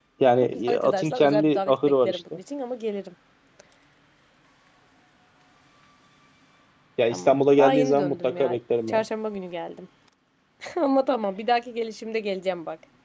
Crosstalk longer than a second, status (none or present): present